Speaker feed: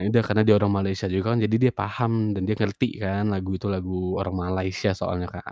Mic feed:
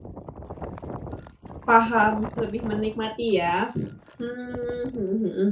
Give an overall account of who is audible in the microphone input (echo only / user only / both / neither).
user only